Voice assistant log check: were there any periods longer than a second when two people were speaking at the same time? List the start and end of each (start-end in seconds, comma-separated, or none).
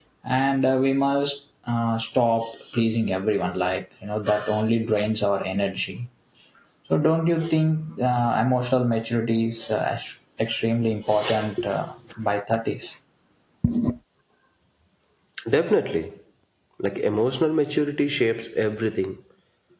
none